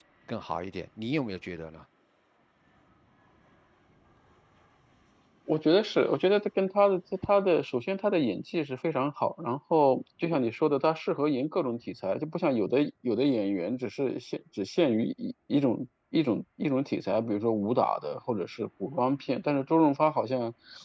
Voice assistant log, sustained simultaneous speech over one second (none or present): none